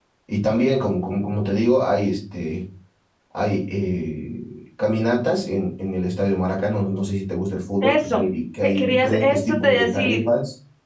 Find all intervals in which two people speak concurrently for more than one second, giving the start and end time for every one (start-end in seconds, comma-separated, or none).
8.6-10.3